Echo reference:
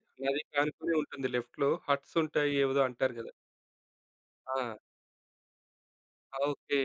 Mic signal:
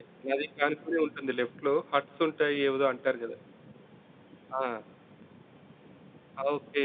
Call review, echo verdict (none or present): present